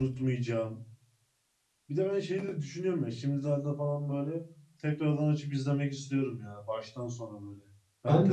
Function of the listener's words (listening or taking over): taking over